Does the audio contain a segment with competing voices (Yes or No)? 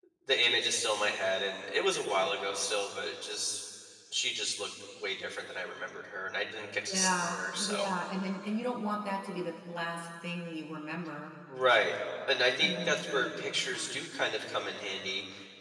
Yes